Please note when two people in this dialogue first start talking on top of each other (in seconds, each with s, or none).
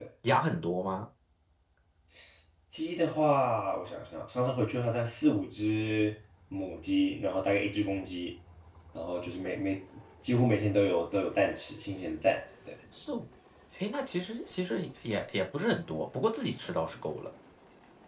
none